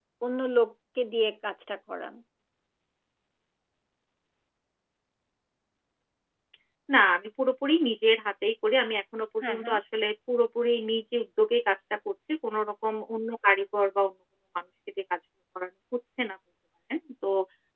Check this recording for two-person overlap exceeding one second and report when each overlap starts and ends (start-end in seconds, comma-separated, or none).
none